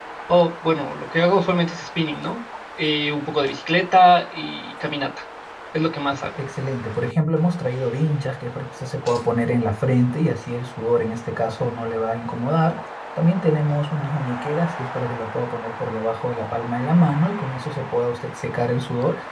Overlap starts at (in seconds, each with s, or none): none